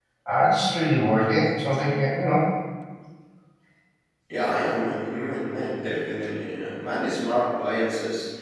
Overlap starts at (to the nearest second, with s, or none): none